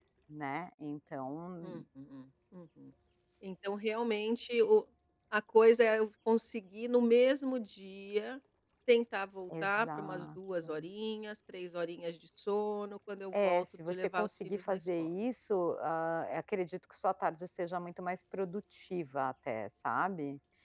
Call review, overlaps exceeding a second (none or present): present